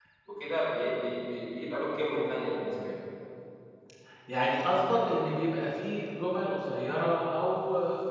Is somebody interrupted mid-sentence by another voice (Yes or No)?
No